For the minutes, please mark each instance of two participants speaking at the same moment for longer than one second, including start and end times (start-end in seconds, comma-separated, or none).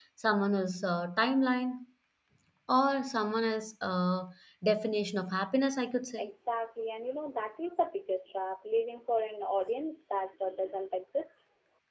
none